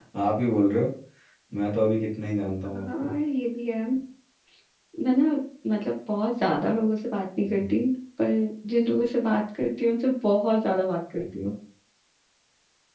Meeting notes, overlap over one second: none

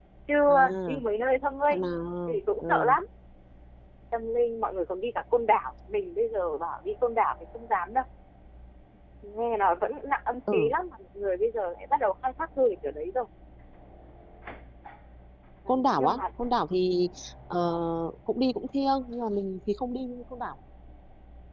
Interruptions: present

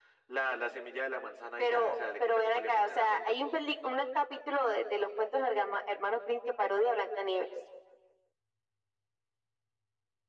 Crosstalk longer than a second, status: present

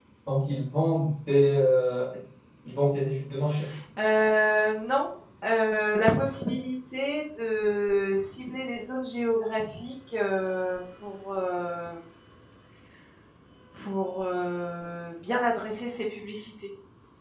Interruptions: none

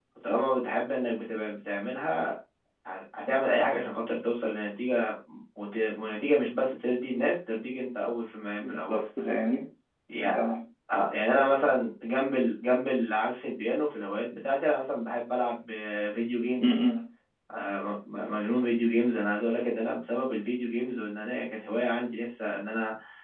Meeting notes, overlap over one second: none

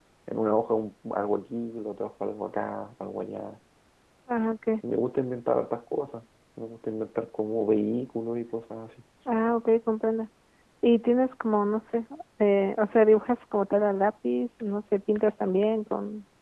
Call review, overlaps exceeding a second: none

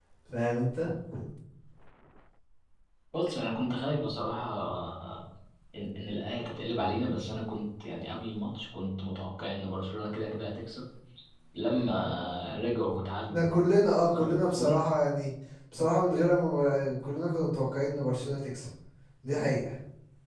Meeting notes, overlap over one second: none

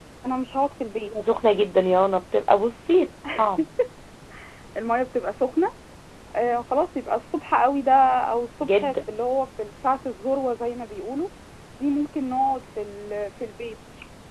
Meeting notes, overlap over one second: none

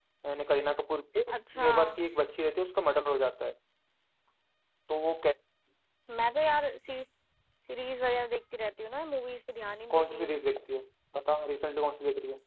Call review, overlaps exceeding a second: none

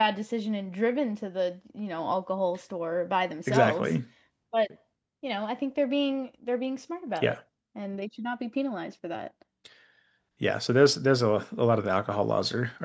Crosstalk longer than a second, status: none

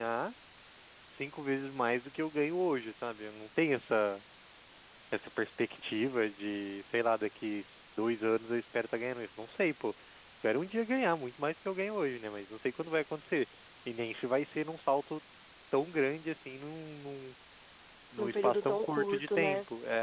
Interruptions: present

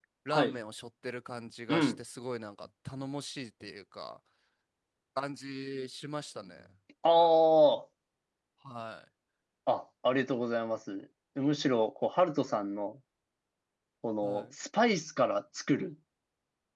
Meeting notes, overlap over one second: none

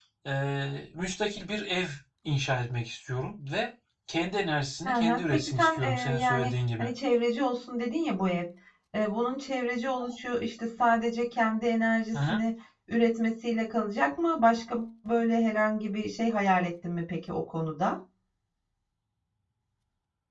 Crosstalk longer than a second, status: present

